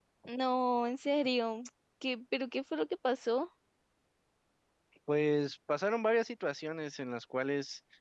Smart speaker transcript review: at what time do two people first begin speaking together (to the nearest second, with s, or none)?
none